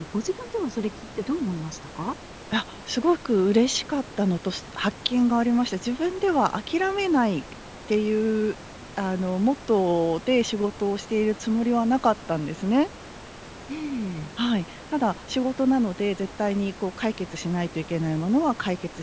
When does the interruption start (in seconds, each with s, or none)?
none